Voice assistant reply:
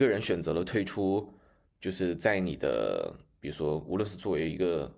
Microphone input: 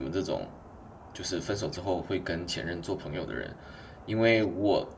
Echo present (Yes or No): No